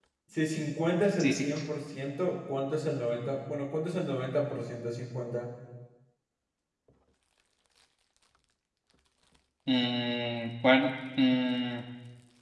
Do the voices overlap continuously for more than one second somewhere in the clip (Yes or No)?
No